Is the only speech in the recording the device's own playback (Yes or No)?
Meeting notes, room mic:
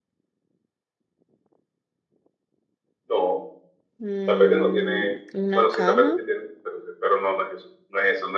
No